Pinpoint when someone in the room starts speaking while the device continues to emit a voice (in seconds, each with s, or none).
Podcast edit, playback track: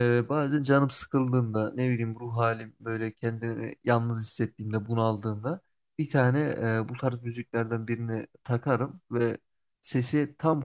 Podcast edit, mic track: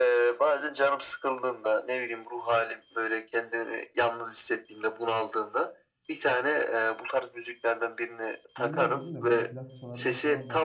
8.6 s